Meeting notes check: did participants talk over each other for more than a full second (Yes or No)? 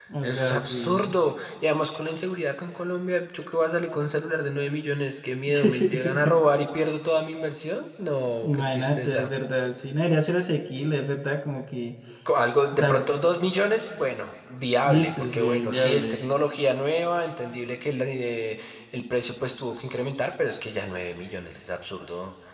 Yes